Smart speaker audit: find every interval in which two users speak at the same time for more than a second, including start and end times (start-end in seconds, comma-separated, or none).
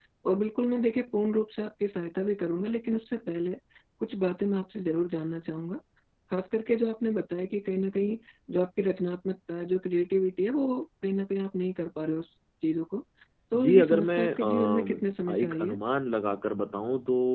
13.6-15.8